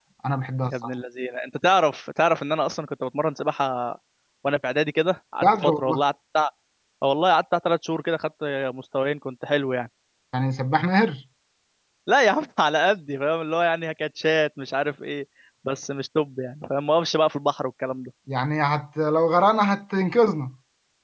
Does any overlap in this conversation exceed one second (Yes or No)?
No